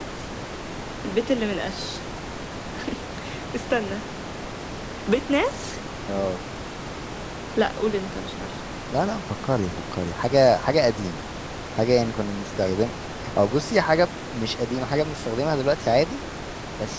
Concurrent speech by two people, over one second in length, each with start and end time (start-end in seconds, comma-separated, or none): none